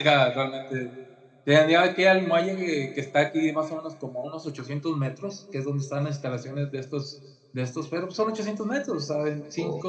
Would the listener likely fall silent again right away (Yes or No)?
Yes